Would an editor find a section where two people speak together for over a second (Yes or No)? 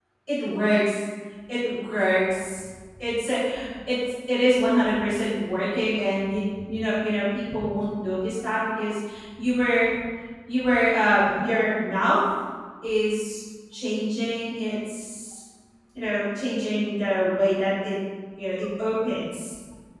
No